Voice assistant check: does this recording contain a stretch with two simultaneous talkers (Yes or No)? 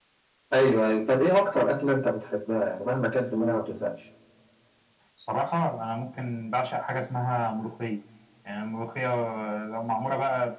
No